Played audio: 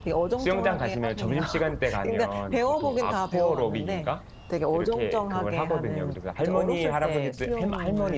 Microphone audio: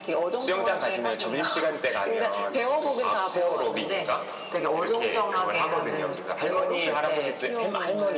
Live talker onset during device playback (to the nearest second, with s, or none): none